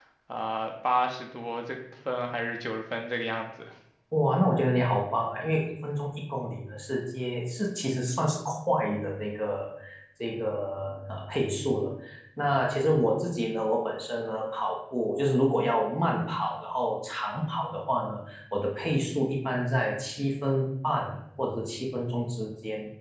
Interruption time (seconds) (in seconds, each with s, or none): none